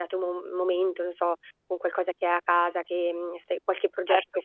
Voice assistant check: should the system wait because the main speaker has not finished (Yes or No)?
No